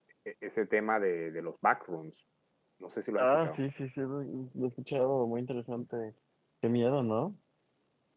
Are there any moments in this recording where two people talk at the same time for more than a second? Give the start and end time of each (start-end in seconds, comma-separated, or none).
none